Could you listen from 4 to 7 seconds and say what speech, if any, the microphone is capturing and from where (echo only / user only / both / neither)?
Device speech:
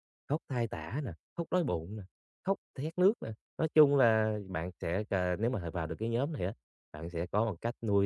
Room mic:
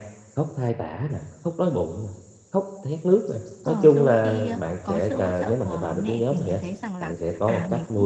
both